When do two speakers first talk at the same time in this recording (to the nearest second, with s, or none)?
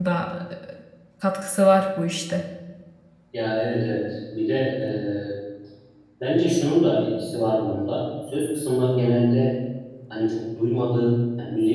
none